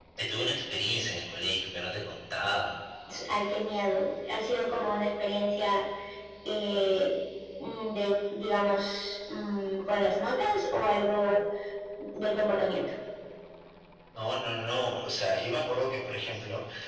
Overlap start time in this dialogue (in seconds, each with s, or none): none